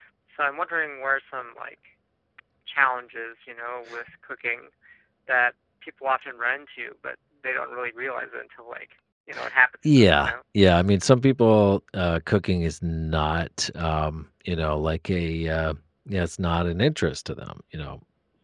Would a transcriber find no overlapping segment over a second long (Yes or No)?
Yes